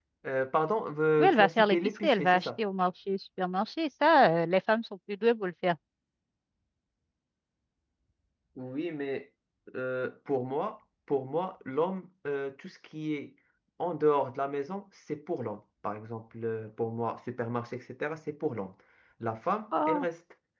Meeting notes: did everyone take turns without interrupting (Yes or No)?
No